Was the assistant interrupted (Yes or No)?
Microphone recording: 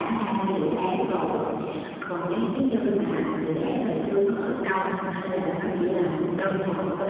No